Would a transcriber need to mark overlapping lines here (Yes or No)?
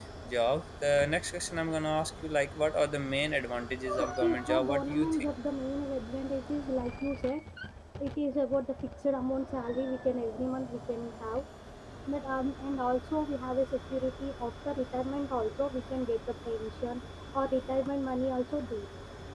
Yes